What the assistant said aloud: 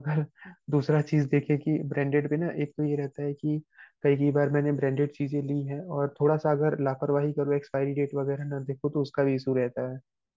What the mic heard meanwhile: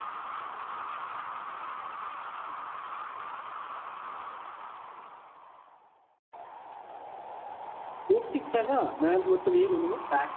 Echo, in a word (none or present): none